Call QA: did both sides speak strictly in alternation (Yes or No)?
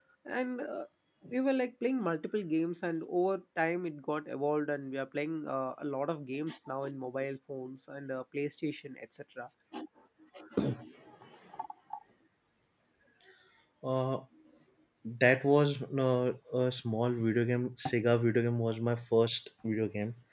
Yes